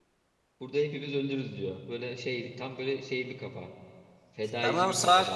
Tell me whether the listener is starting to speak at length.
Yes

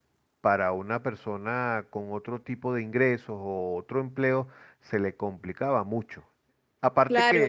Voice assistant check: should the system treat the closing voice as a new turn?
Yes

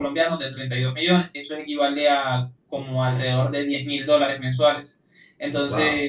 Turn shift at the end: No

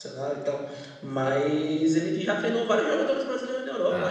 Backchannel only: Yes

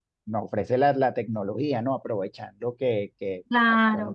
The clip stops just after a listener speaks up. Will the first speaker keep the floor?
No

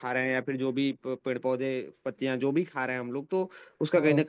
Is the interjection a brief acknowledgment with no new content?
Yes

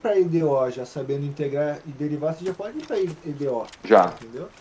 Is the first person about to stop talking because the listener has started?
Yes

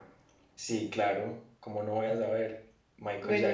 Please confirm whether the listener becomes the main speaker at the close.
Yes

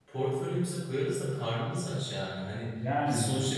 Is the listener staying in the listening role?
Yes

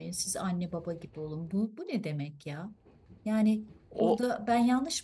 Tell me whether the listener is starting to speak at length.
No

